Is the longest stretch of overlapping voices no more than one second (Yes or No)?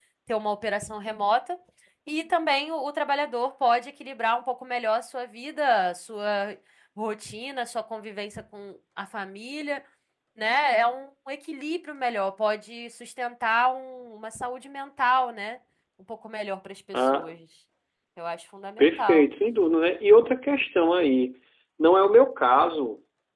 Yes